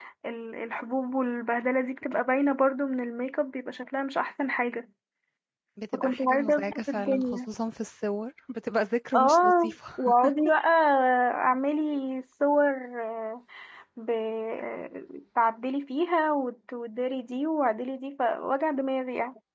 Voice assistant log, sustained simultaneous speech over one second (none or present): present